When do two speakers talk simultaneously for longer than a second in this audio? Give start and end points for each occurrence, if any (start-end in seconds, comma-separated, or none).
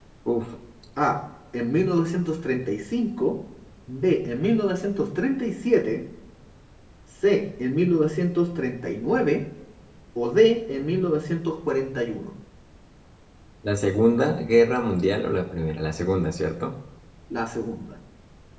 none